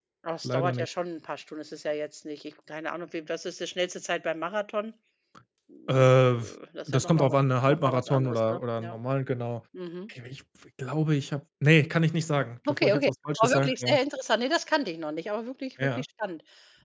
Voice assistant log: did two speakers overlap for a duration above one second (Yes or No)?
Yes